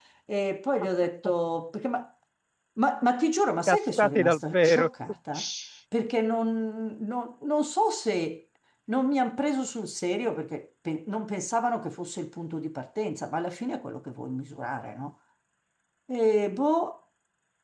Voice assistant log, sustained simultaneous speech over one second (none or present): present